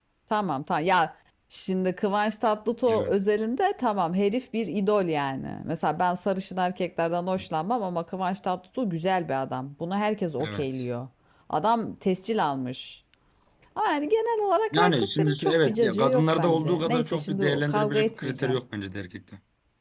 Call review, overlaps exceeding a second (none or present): present